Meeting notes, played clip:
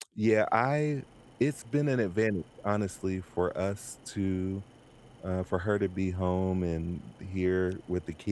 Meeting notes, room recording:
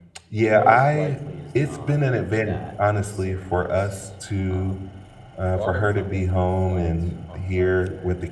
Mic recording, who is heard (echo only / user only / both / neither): both